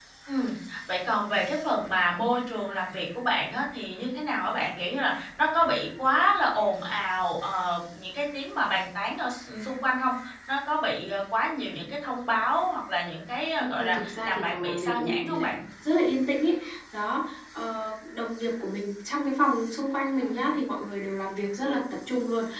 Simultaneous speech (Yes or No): Yes